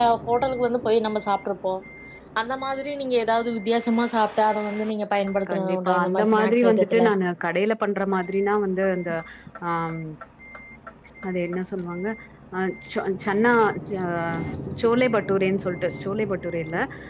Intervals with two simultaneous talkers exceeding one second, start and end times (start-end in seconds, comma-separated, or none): 5.5-7.0